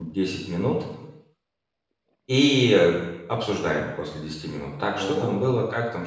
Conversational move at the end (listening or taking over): listening